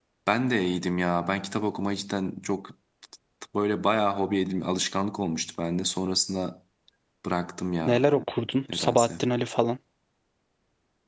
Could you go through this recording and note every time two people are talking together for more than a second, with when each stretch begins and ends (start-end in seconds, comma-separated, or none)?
none